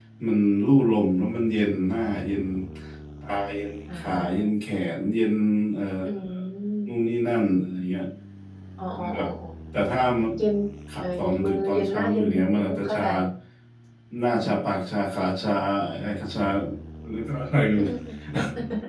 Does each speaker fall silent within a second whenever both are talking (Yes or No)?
No